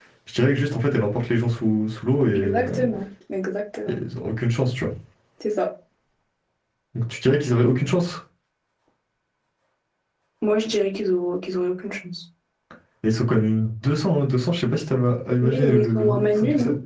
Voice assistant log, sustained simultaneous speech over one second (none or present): present